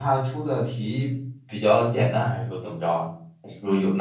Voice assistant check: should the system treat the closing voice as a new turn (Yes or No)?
Yes